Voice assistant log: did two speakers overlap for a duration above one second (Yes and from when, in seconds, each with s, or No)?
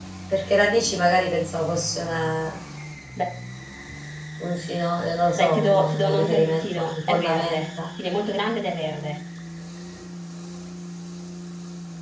Yes, from 5.3 s